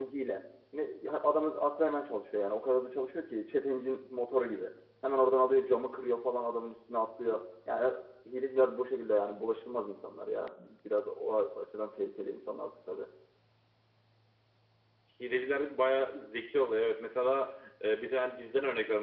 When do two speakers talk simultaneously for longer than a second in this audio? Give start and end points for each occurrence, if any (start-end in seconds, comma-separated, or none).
none